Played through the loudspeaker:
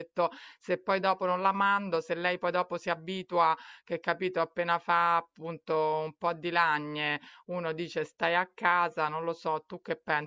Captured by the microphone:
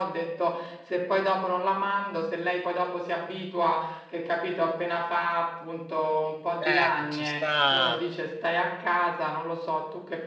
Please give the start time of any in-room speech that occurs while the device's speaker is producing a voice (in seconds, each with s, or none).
6.7 s